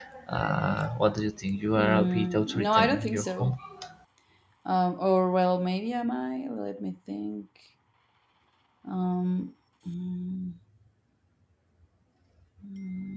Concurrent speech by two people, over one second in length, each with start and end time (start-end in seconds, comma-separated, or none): 1.8-3.5